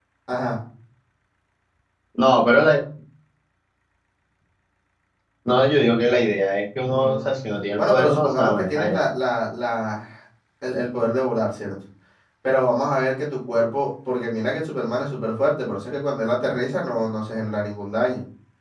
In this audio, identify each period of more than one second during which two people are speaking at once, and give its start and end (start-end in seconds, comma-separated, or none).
7.8-9.0